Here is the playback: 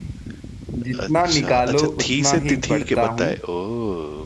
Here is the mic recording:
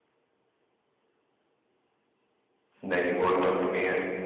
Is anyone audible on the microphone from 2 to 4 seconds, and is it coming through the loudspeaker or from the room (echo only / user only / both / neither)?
user only